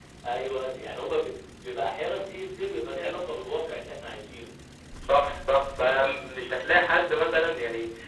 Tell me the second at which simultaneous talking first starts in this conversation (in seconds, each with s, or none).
none